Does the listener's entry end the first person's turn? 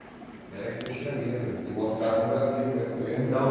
Yes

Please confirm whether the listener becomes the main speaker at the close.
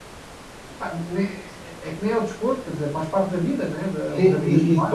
Yes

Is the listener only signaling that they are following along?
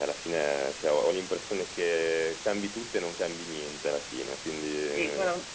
No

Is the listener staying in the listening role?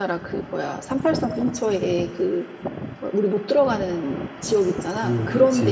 No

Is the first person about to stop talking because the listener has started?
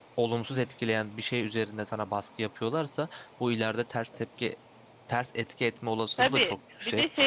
Yes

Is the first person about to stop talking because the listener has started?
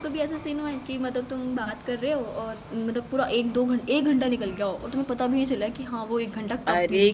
Yes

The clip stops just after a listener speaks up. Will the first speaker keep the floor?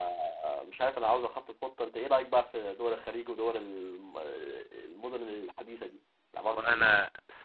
No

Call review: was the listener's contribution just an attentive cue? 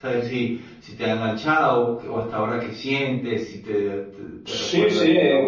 No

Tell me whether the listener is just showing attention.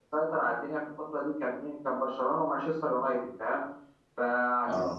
Yes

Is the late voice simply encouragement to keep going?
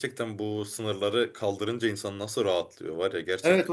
No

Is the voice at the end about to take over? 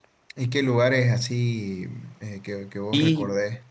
Yes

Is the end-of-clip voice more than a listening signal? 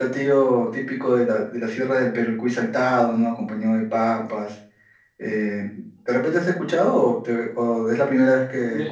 Yes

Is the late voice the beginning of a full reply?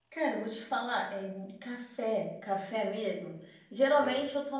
No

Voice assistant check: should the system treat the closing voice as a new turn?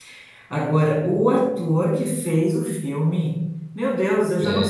No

